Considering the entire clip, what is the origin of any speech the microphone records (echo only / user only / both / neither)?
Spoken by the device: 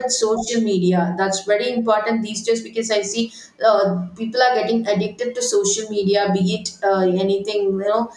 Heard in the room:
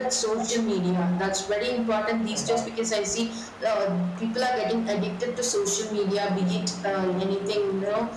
both